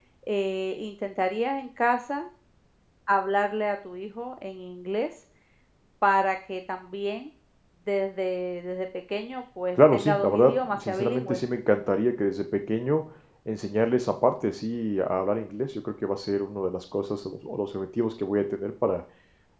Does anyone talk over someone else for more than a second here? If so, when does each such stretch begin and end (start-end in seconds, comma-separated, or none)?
9.9-11.4